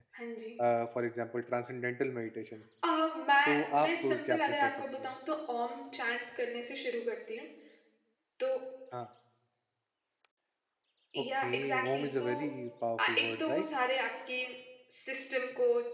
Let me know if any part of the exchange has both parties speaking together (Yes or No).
Yes